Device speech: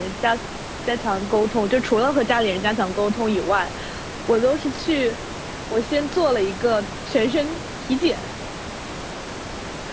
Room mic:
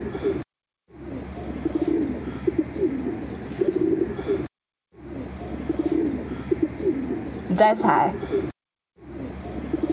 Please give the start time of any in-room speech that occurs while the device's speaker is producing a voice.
7.5 s

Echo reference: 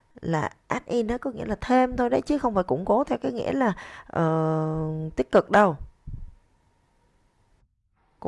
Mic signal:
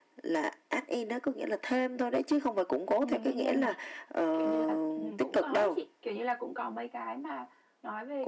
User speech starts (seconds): 3.0 s

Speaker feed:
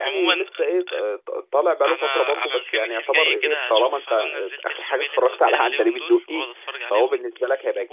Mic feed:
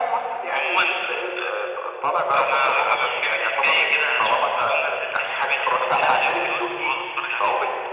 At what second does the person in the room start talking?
none

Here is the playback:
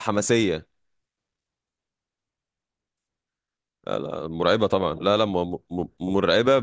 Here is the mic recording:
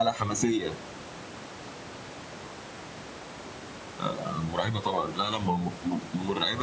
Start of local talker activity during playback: none

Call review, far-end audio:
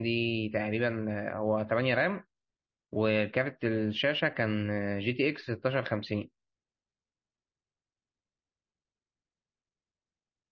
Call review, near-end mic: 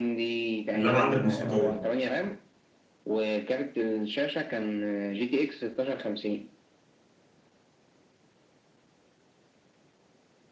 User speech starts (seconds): 0.7 s

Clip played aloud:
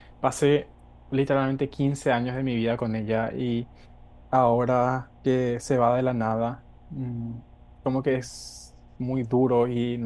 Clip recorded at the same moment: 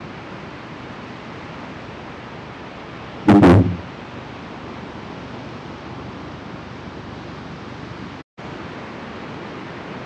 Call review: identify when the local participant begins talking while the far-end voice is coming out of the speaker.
3.2 s

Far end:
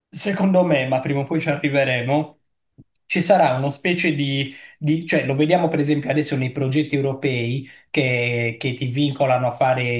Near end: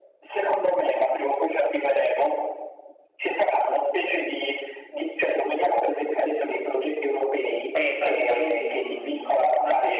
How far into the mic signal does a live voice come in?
7.7 s

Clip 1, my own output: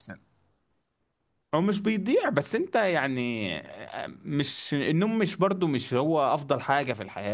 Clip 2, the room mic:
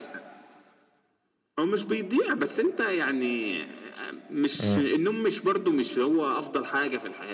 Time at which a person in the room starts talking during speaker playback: 4.6 s

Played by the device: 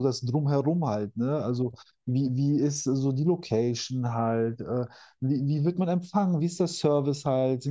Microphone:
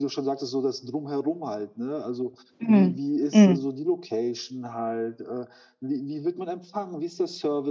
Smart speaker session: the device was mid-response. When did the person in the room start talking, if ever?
2.6 s

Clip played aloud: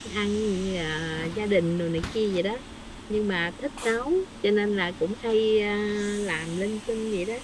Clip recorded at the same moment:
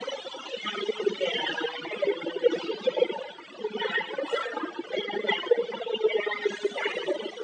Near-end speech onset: none

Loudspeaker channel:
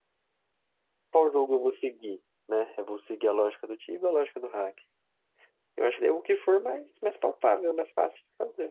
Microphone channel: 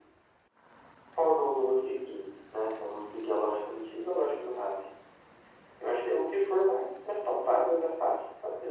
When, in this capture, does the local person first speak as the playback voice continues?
none

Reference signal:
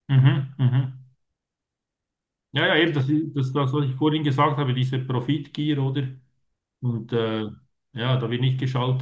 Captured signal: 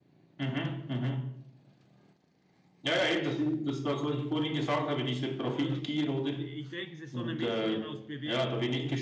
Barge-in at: 5.5 s

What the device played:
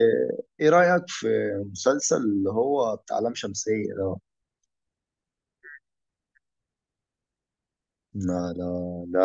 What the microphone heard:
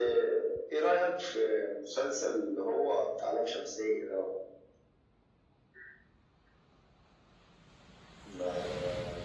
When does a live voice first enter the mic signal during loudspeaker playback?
none

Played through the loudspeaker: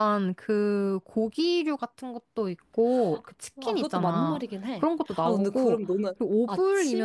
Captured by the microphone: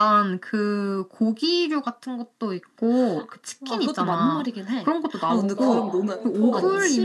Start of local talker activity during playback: 5.5 s

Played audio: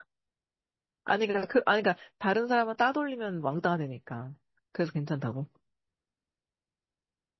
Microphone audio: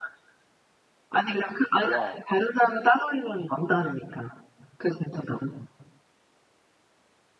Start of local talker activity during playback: 1.8 s

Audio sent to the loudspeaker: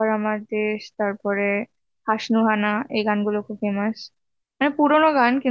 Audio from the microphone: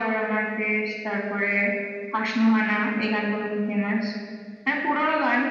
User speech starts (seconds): none

